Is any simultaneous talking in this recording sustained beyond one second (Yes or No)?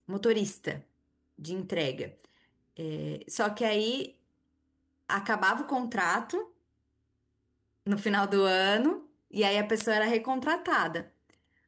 No